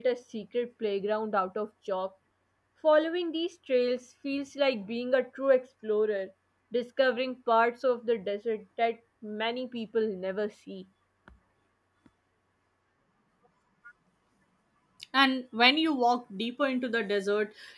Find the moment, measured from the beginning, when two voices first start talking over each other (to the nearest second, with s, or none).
none